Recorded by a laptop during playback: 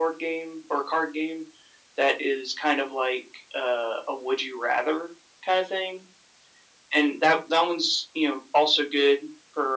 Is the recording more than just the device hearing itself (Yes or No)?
No